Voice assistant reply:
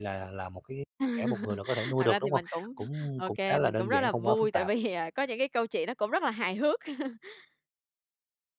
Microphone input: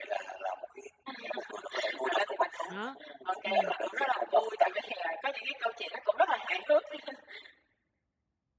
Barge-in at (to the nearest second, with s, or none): 3 s